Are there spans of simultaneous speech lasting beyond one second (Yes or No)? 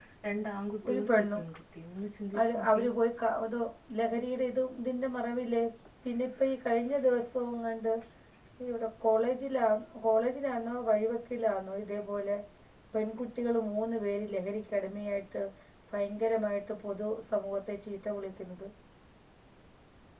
No